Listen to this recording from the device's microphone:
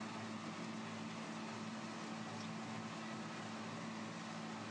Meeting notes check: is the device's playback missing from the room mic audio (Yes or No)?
Yes